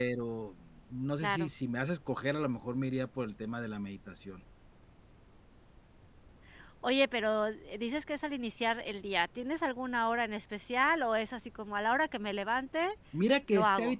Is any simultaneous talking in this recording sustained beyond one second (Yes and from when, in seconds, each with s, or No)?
No